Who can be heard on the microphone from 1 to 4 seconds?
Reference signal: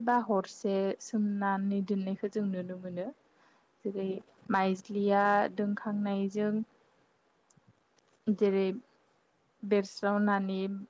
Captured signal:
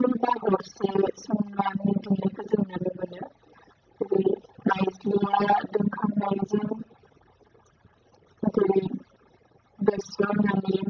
echo only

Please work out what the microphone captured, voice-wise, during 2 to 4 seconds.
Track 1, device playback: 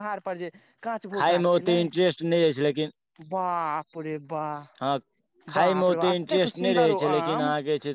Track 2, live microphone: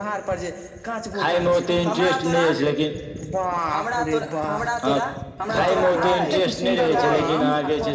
both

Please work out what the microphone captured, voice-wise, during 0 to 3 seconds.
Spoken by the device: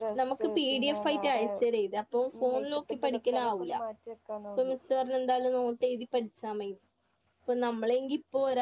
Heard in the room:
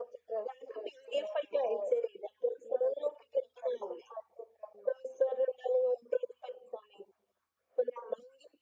echo only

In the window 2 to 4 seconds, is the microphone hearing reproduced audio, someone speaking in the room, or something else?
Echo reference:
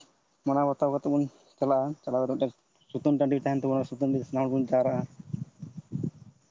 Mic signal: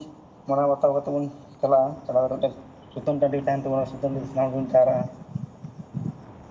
echo only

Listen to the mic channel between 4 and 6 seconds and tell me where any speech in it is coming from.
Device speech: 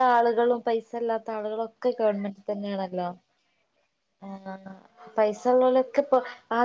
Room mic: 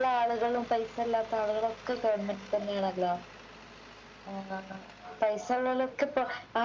echo only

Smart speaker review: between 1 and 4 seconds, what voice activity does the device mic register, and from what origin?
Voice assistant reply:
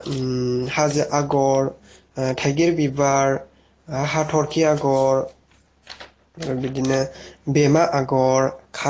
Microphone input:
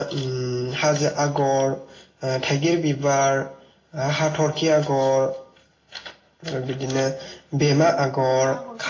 echo only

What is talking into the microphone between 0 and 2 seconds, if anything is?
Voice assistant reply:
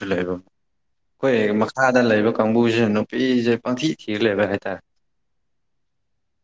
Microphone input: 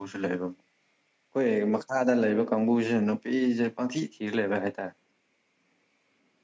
echo only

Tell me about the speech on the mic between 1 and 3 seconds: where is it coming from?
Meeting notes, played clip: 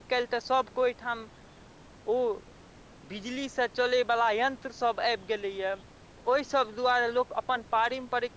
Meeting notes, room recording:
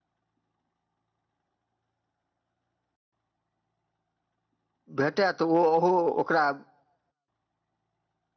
neither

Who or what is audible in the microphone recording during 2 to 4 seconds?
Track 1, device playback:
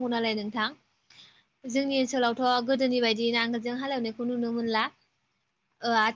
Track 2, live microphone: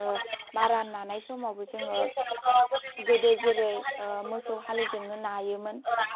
both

